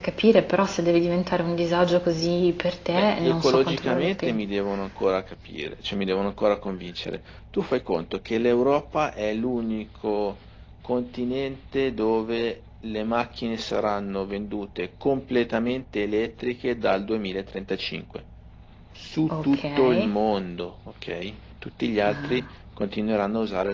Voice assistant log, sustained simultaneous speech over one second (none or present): present